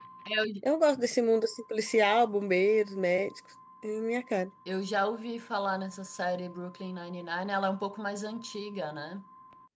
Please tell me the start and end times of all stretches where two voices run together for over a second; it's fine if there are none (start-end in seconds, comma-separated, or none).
none